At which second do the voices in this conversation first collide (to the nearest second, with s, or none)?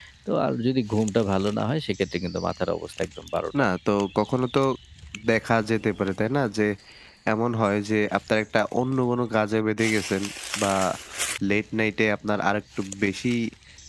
none